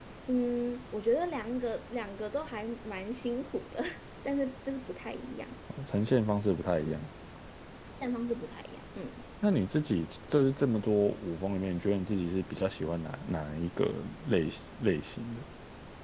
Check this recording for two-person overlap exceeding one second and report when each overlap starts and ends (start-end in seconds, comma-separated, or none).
none